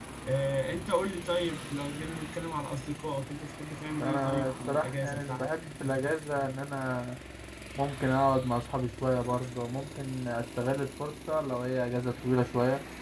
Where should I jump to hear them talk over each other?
4.0 s

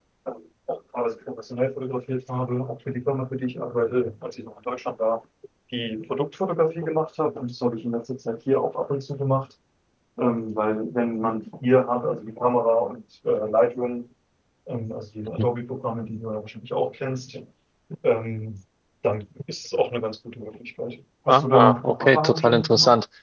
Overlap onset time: 21.3 s

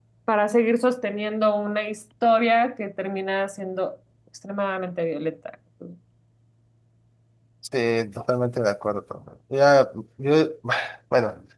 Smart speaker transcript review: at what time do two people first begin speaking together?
none

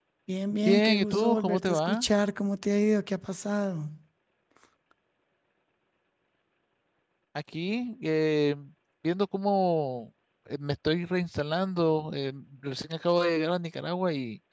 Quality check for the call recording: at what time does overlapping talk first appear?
0.7 s

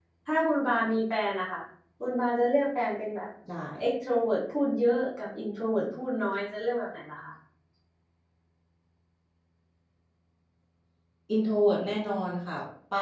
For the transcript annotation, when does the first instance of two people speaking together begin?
none

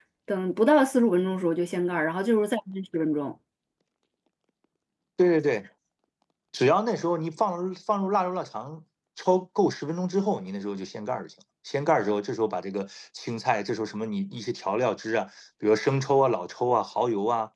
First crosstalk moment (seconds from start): none

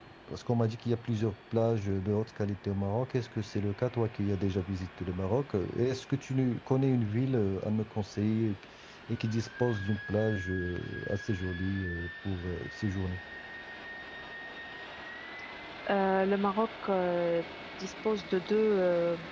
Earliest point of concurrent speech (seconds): none

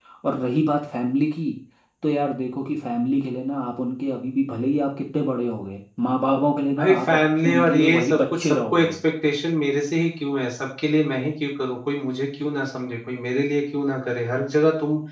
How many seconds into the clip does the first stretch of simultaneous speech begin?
6.8 s

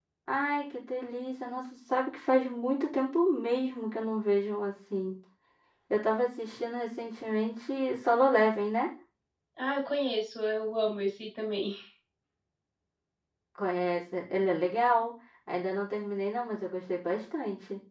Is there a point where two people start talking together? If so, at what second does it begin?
none

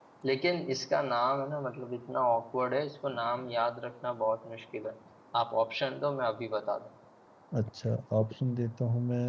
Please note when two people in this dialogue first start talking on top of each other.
none

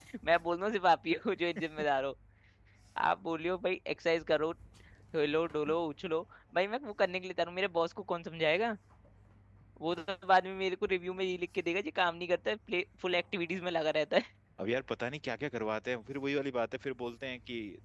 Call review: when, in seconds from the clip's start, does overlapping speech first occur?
none

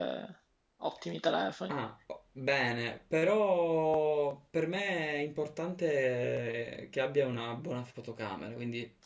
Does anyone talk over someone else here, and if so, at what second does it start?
none

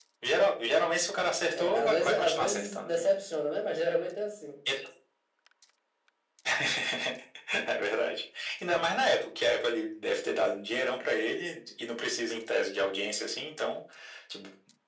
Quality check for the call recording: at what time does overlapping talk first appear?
1.6 s

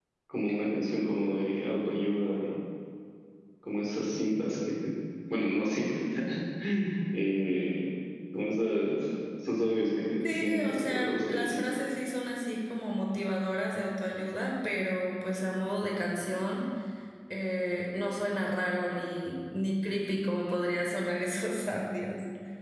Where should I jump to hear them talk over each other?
10.2 s

